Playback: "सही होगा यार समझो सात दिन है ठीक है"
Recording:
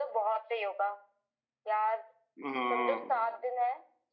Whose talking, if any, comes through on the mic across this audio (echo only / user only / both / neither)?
both